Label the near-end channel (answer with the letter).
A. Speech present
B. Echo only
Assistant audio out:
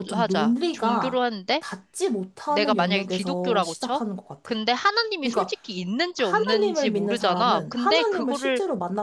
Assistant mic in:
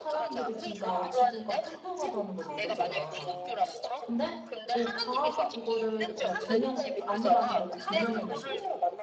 A